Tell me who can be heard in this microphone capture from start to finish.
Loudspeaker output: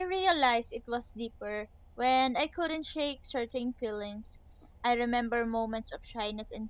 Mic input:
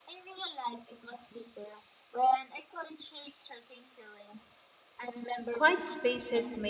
both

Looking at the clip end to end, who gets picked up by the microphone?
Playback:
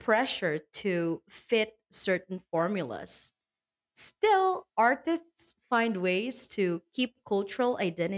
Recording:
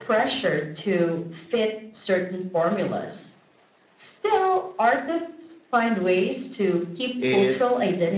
both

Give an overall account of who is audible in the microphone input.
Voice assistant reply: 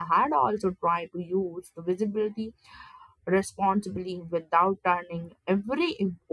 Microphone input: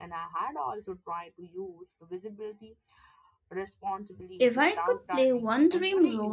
both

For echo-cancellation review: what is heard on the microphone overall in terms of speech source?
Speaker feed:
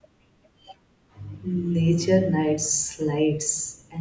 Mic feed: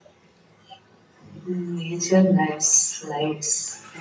echo only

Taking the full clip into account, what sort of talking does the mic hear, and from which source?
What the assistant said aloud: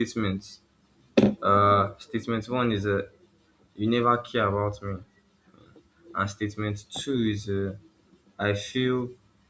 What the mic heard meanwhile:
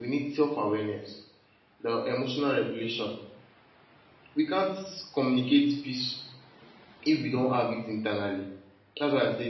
user only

